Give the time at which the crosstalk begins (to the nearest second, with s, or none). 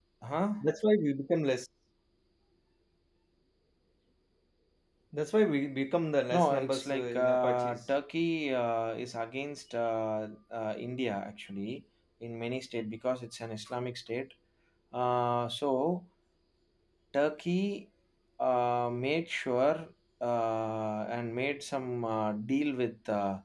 6 s